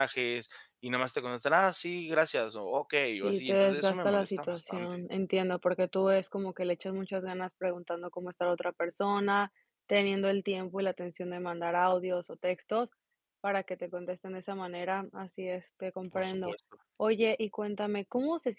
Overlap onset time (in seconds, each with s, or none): 3.2 s